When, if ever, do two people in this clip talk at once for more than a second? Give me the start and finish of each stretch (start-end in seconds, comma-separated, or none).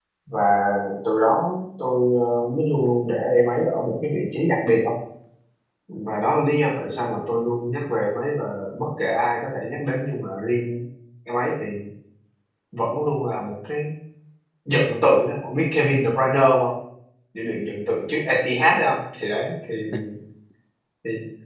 none